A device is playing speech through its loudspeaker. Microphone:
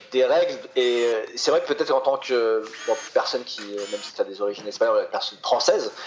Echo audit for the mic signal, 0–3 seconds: echo only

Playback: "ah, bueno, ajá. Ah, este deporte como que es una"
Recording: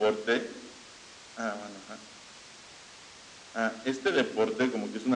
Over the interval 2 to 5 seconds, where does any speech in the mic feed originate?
echo only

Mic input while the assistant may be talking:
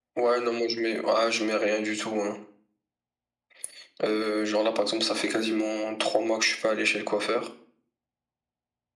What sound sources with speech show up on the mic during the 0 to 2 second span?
echo only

